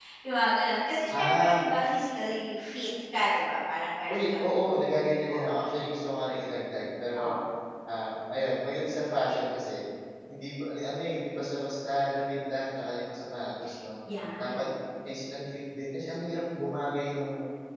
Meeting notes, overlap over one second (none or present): none